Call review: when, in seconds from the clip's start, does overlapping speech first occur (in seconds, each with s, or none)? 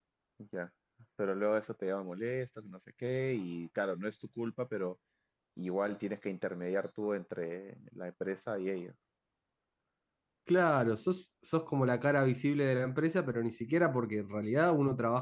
none